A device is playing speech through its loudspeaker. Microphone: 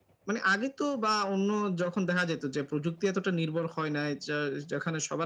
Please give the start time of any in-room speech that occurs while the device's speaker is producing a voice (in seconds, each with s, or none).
none